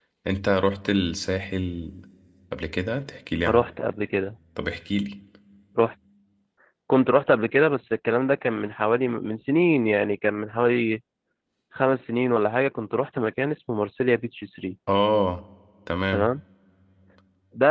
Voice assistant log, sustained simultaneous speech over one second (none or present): none